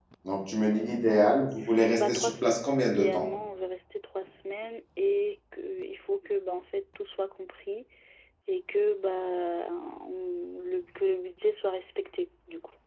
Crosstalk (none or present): present